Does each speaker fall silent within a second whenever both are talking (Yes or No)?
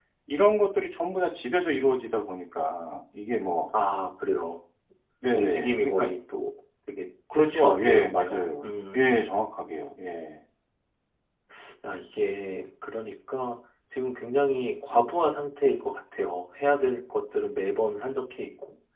No